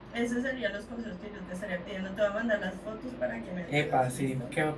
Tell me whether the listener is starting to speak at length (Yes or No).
Yes